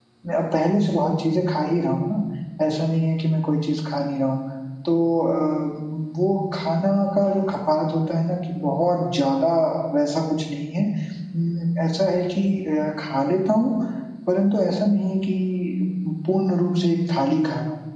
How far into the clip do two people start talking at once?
none

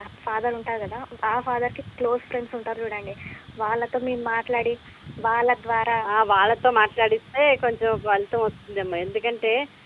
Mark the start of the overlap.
none

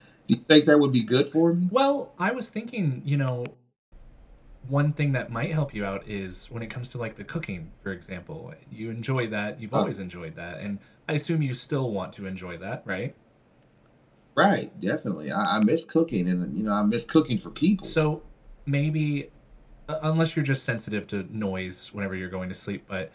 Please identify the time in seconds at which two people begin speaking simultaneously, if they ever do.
none

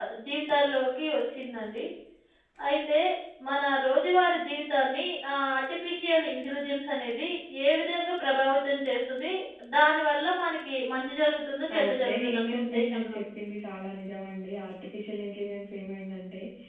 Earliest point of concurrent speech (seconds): 12 s

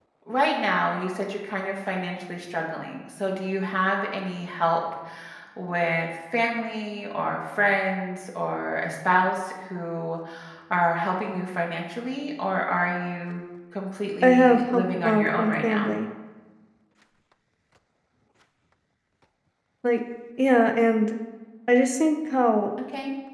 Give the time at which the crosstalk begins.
14 s

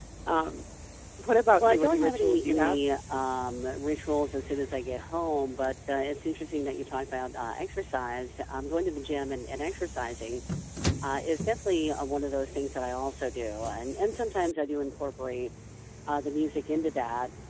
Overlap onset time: 2 s

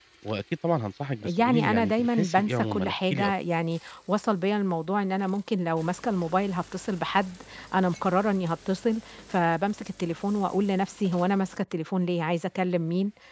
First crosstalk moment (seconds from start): 1 s

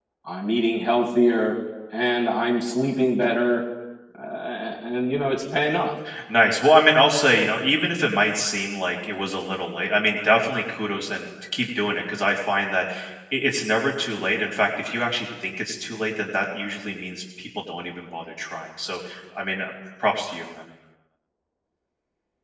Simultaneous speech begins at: none

